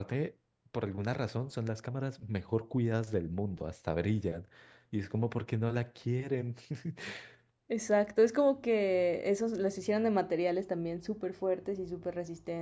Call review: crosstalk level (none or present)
none